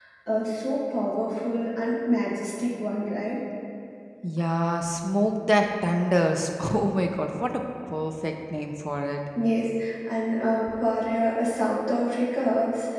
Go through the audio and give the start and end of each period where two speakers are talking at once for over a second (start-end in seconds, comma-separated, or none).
none